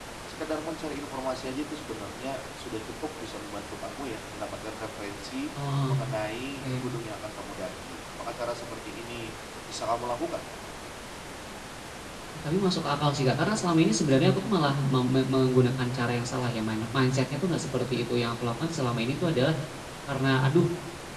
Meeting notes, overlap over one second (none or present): none